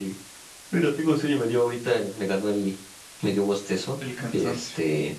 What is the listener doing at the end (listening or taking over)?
listening